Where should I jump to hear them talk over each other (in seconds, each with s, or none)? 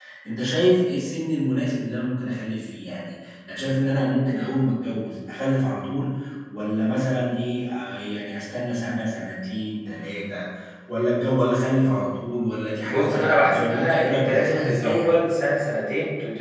12.8 s